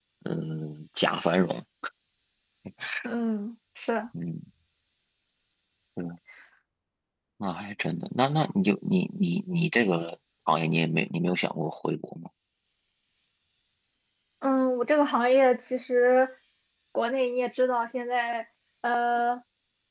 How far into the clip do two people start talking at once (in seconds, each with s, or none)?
none